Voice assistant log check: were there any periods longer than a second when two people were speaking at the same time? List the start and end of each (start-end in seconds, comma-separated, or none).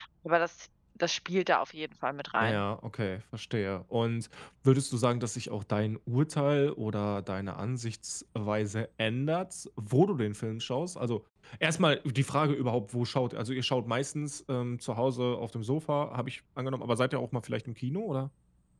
none